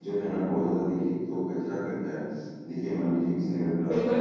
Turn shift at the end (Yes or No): No